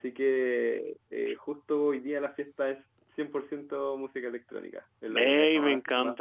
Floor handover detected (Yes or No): Yes